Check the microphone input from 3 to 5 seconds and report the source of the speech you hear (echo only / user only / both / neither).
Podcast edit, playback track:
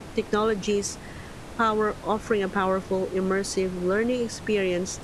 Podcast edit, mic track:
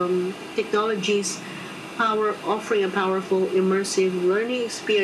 echo only